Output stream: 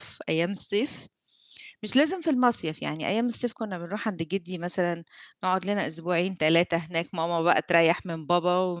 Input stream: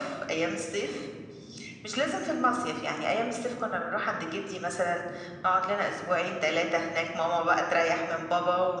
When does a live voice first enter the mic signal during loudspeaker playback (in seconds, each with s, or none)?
none